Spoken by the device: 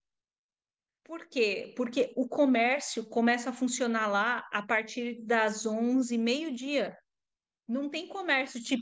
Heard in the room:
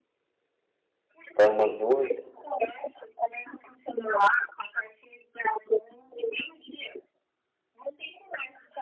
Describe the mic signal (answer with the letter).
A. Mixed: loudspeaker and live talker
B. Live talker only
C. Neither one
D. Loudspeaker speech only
A